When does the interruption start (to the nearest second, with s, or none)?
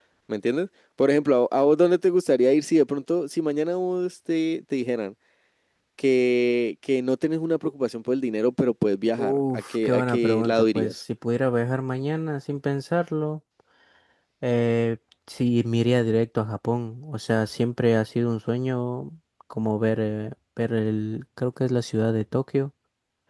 9 s